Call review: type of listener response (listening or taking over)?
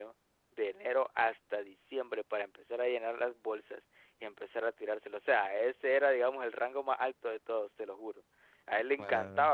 listening